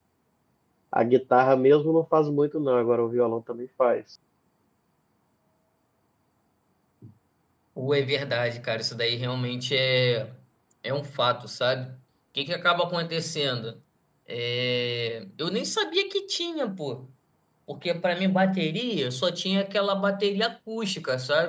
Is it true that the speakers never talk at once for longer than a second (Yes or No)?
Yes